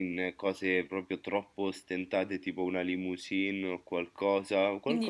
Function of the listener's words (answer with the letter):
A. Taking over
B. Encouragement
A